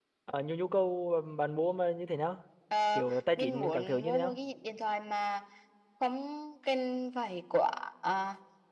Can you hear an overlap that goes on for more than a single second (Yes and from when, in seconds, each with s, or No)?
Yes, from 3.0 s